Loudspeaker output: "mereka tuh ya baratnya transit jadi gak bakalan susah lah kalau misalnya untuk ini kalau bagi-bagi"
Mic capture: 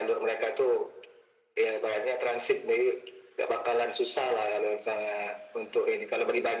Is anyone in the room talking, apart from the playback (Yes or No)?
No